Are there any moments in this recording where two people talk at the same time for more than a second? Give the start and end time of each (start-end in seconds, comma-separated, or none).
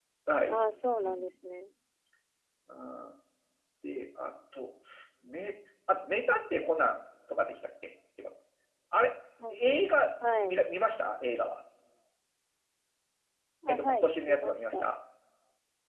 13.7-14.9